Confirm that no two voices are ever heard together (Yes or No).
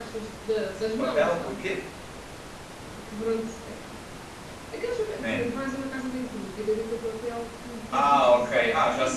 No